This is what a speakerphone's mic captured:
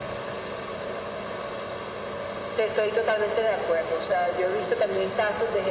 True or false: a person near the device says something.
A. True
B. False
B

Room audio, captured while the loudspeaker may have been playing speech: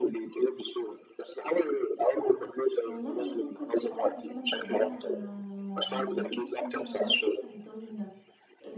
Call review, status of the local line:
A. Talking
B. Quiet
A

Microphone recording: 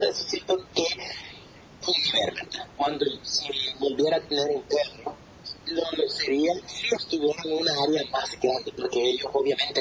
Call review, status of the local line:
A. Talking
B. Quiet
B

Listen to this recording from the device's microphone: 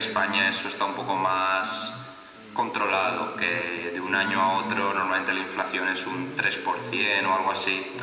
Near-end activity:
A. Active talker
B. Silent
A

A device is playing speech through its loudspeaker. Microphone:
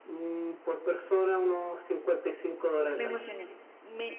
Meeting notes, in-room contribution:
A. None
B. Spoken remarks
B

